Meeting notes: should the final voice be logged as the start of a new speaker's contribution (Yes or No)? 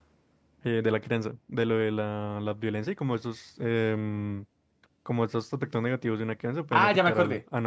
Yes